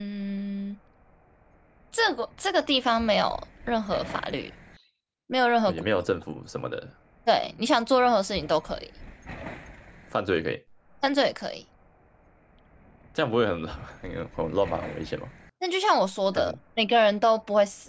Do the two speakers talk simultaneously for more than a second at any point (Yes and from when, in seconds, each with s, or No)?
No